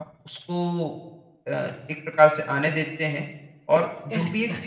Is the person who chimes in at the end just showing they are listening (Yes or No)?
Yes